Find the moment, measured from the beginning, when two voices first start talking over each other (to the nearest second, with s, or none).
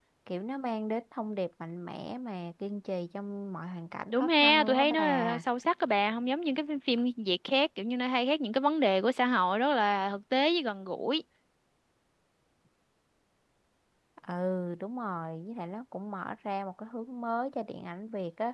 4 s